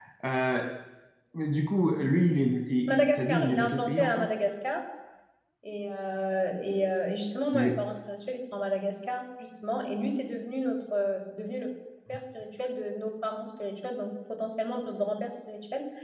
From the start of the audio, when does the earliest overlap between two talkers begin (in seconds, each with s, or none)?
2.9 s